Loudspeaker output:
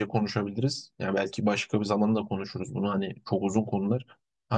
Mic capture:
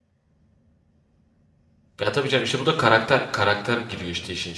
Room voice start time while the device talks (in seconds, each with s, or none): 2.0 s